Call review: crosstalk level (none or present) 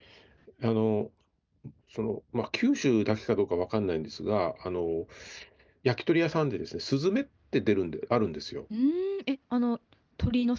none